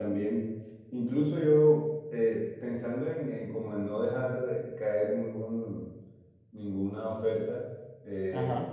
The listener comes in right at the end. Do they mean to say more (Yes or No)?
No